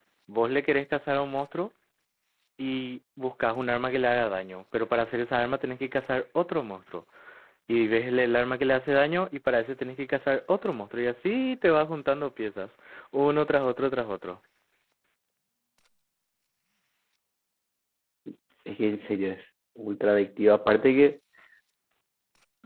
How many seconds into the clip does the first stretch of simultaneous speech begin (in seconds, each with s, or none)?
none